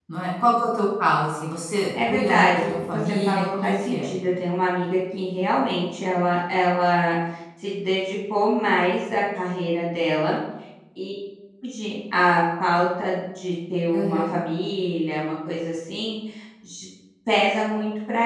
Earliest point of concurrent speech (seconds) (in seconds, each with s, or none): 2.0 s